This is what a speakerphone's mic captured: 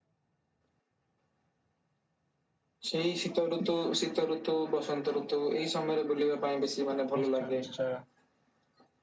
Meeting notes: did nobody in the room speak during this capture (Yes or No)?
No